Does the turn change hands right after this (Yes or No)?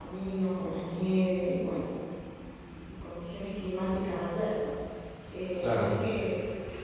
No